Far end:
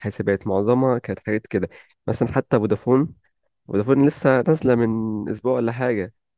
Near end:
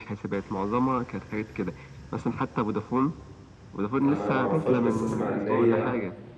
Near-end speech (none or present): present